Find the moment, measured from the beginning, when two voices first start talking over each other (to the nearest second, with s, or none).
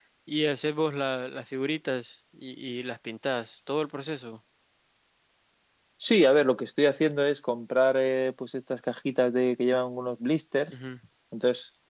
none